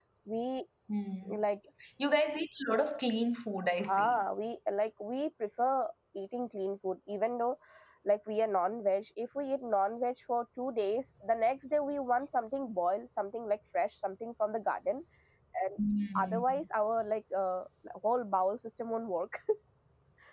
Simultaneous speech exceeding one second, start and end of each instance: none

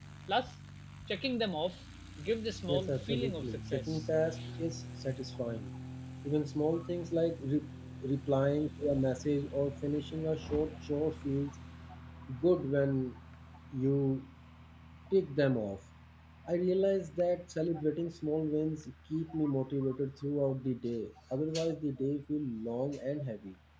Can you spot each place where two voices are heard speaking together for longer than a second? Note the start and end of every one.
2.7-4.1

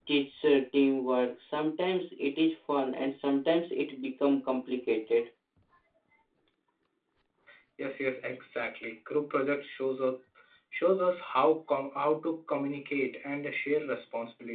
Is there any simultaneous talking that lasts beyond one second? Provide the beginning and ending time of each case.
none

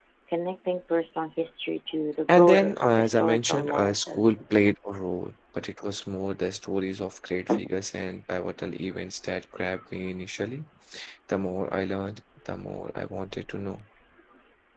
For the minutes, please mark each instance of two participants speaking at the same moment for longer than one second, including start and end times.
2.4-4.2

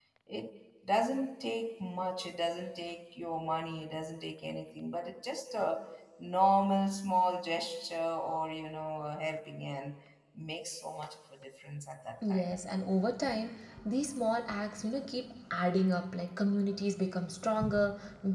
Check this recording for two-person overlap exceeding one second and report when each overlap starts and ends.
none

